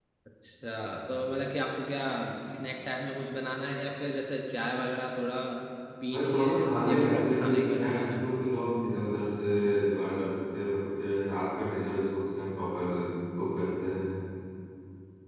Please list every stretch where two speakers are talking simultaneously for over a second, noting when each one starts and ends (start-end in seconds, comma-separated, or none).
6.1-8.3